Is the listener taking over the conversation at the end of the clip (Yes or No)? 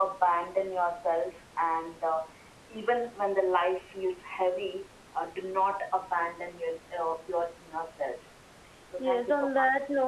Yes